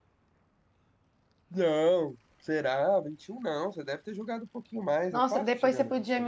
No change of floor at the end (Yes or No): No